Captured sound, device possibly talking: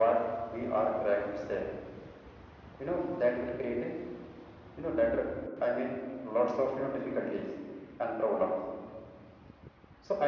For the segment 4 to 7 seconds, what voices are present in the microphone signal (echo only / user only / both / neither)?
echo only